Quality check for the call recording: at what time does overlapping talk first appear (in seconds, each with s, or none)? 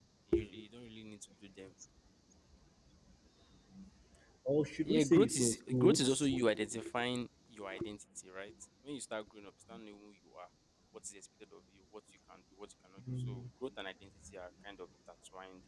4.8 s